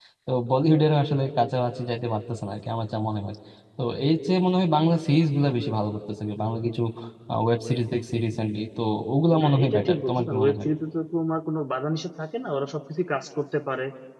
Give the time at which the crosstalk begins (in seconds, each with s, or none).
9.4 s